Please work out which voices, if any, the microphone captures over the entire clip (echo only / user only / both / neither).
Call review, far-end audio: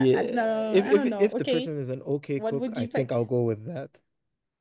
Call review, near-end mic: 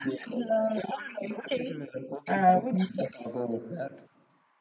both